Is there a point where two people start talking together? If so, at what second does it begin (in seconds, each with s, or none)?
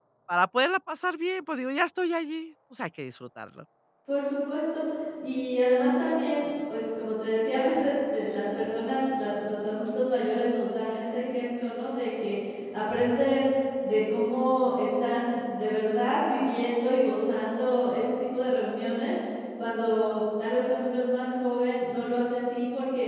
none